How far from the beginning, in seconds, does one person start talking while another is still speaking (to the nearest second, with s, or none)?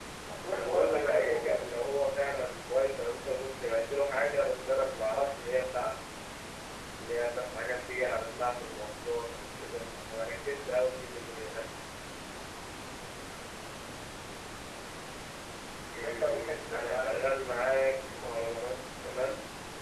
1 s